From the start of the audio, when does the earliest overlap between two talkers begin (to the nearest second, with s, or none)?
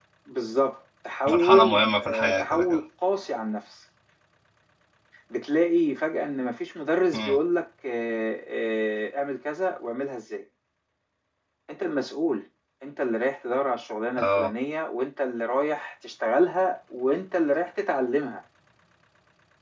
1 s